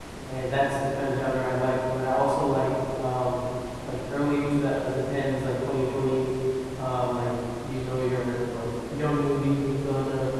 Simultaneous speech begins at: none

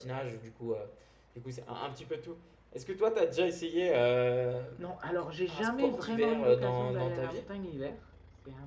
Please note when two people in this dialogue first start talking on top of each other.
5.5 s

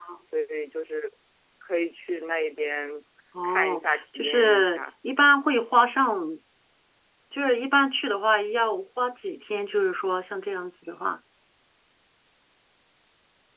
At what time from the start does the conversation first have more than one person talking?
3.4 s

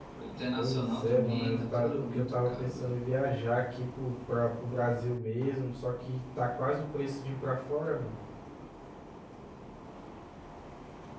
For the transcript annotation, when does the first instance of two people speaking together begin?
0.6 s

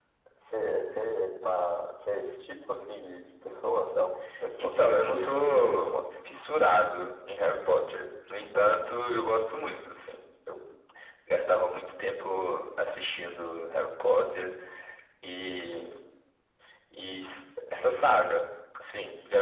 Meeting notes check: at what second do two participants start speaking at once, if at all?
4.6 s

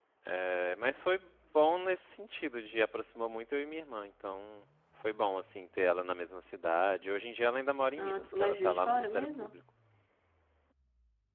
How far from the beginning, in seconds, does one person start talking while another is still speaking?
8.0 s

